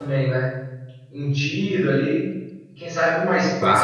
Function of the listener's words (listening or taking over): listening